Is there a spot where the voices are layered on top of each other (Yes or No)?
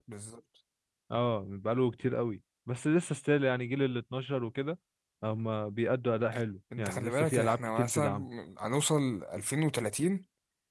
Yes